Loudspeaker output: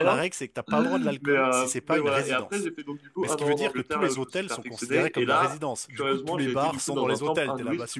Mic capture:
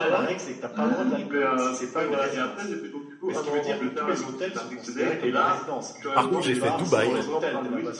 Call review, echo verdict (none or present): present